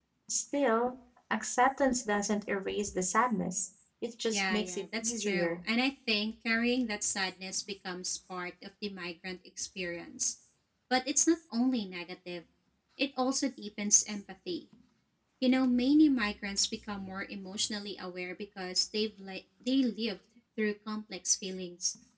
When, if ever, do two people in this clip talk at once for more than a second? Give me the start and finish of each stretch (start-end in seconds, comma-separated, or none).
4.3-5.6